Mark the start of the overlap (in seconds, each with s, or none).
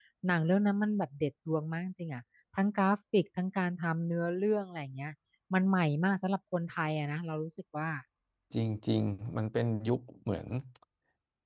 none